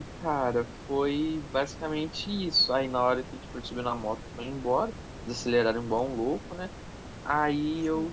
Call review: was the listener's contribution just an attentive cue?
Yes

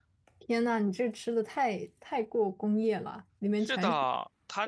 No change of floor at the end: No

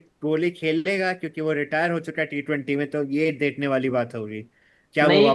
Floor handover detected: Yes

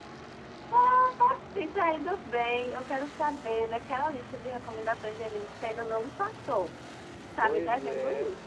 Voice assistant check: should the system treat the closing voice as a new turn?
Yes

